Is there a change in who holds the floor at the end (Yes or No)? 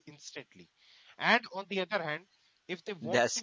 No